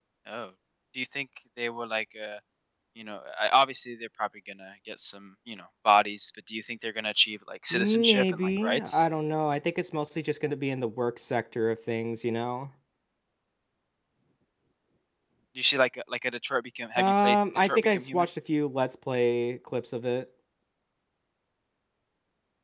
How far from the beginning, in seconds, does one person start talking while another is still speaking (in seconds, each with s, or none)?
7.7 s